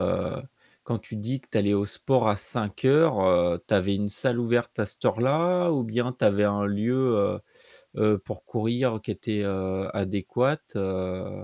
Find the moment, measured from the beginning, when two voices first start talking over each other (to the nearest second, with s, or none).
none